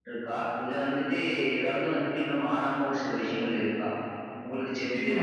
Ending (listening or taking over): taking over